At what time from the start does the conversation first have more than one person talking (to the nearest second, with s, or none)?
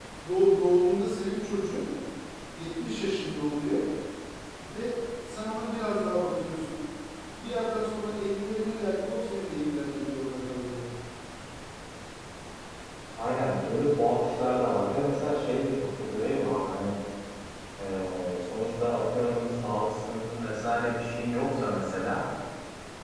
none